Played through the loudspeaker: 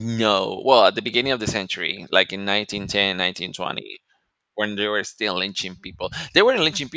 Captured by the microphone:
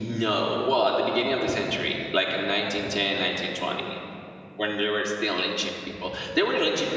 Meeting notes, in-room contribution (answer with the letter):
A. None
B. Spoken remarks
A